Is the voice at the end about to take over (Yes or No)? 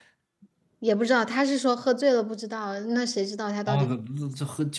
Yes